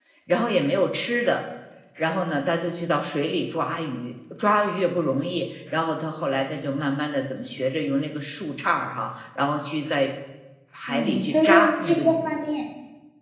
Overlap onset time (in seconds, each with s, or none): 10.9 s